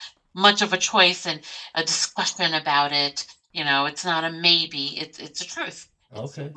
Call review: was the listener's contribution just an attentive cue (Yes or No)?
Yes